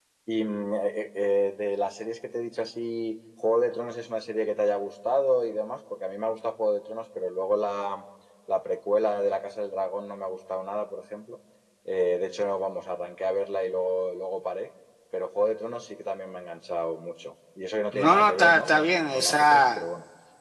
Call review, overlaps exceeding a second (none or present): present